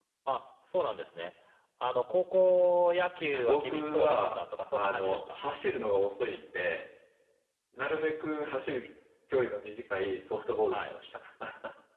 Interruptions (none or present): present